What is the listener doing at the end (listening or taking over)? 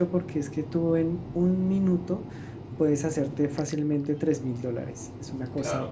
listening